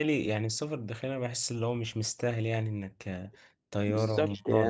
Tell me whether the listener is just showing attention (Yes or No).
No